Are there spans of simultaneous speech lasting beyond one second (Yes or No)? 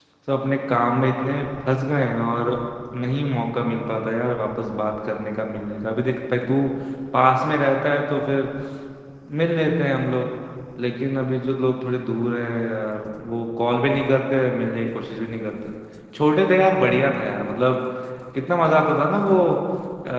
No